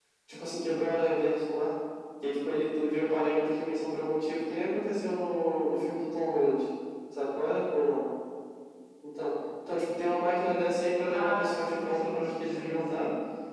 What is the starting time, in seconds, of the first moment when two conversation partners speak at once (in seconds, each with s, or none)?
11.1 s